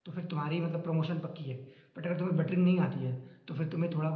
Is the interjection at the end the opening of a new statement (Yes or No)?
No